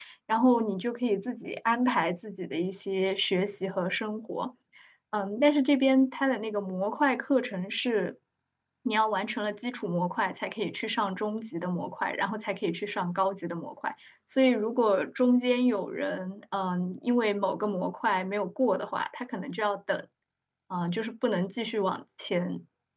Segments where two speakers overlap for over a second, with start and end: none

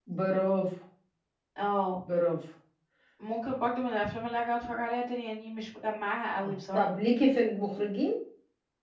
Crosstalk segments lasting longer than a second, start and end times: none

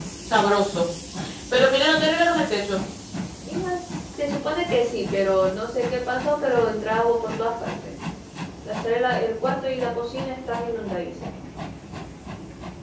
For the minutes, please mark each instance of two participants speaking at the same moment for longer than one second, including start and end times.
none

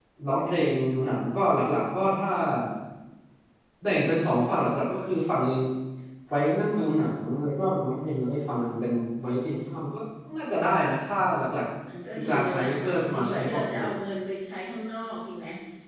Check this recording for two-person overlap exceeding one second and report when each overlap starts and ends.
12.2-13.8

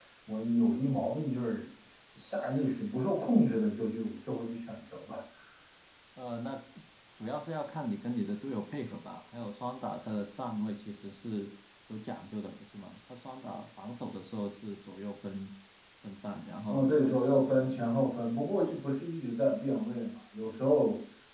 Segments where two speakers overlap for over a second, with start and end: none

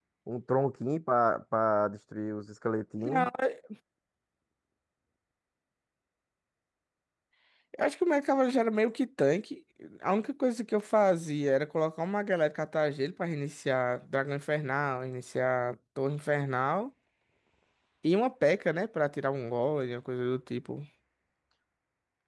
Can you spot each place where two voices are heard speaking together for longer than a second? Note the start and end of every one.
none

